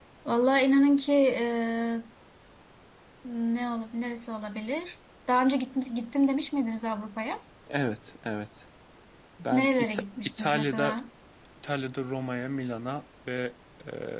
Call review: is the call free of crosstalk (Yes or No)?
No